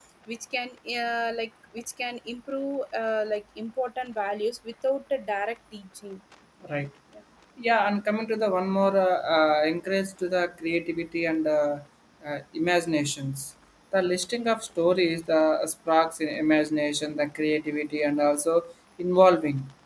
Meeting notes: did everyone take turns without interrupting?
Yes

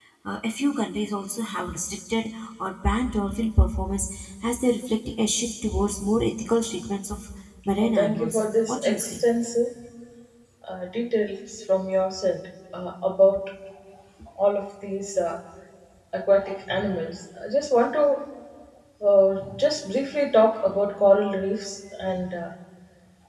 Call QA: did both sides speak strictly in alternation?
No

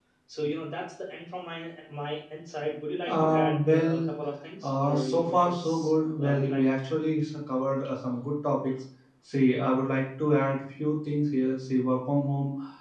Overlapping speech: Yes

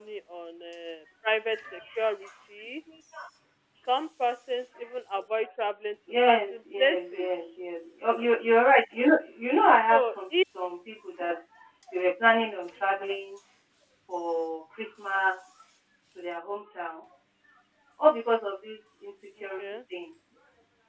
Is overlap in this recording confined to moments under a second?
No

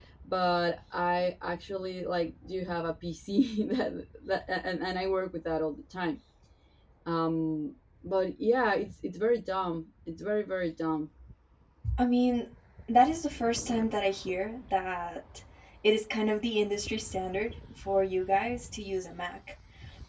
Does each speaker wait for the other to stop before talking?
Yes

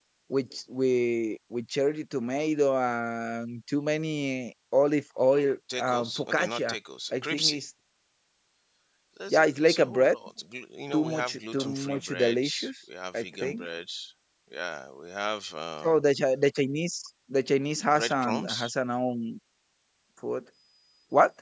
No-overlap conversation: No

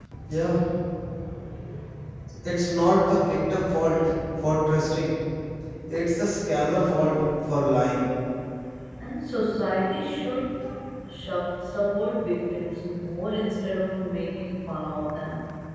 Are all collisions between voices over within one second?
Yes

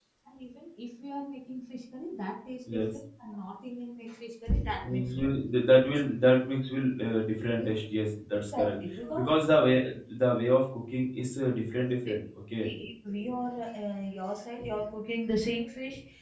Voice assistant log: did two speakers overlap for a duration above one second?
No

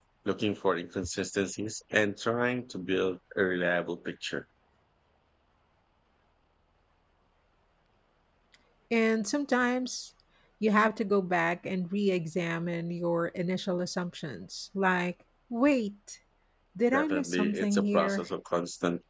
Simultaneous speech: Yes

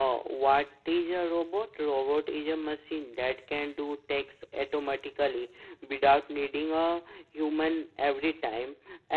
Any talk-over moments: No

